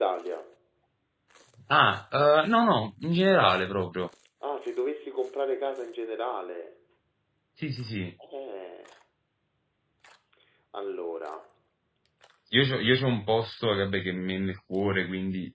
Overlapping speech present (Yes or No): No